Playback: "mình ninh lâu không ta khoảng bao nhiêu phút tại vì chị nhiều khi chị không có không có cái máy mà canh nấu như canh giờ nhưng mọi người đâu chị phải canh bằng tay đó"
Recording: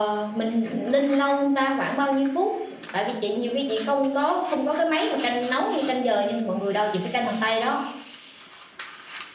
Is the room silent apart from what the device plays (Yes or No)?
Yes